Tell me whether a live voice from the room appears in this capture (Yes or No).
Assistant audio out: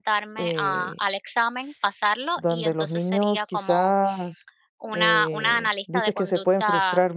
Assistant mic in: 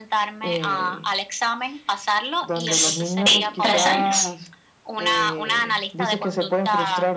Yes